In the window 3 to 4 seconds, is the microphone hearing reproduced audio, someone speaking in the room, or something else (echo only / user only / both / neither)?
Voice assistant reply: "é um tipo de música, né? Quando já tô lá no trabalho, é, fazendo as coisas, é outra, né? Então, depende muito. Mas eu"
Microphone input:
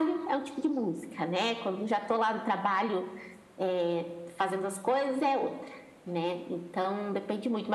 echo only